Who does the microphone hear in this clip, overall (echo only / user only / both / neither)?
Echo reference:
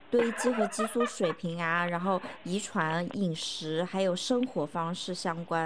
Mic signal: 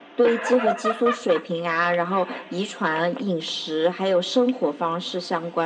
echo only